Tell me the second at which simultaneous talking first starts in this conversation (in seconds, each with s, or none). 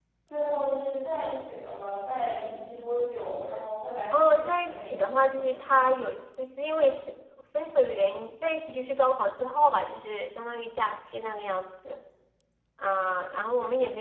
4.1 s